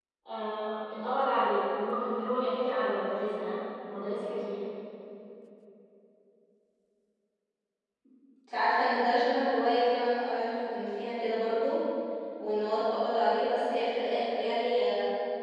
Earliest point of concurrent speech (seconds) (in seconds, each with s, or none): none